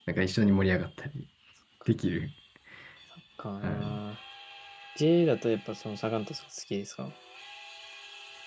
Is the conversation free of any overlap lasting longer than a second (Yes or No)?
Yes